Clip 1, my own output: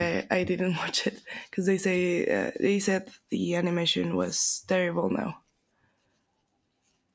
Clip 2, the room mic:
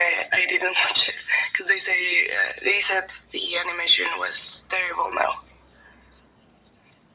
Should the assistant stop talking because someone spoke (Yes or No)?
No